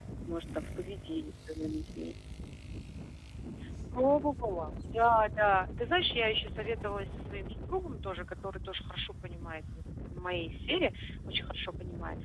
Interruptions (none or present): none